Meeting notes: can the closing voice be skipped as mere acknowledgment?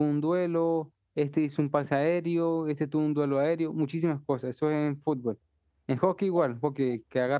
Yes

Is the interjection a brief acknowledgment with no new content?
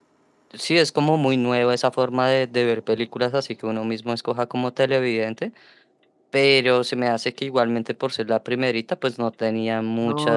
No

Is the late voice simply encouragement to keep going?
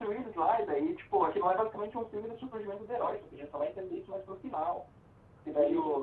Yes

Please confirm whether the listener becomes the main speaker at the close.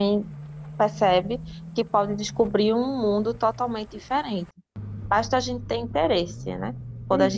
No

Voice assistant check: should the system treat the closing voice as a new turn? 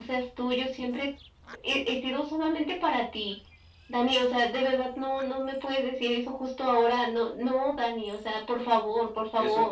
Yes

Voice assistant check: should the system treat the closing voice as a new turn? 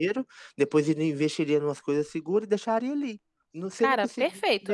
No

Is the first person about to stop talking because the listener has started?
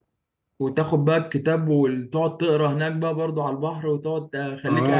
Yes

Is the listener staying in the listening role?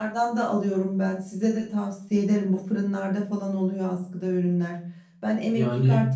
Yes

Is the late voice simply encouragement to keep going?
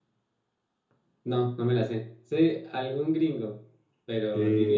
No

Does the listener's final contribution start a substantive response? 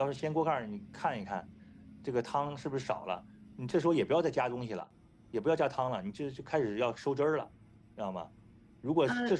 No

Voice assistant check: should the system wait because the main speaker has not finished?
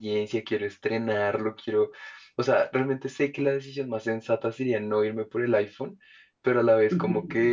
Yes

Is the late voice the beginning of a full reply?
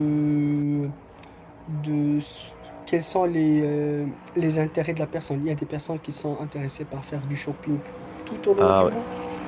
No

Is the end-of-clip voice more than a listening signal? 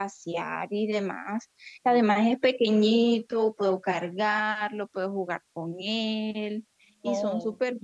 Yes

